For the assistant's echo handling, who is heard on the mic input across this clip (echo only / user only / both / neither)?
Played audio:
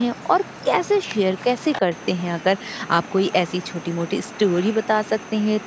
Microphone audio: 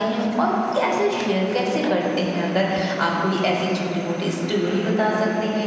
echo only